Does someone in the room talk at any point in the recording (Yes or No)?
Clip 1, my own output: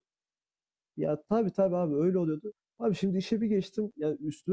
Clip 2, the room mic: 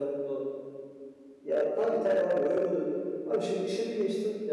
No